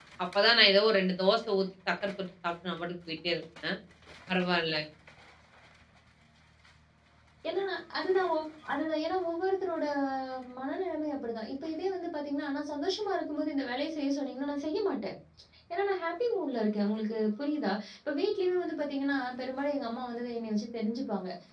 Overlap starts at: none

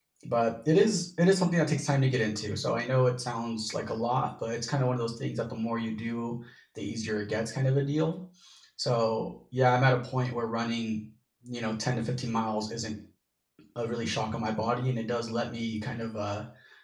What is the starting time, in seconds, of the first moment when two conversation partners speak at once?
none

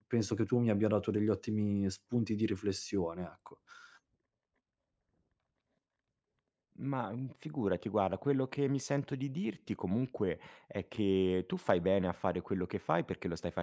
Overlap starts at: none

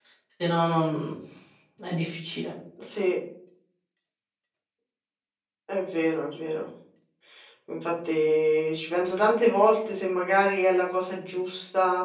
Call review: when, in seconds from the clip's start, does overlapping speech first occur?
none

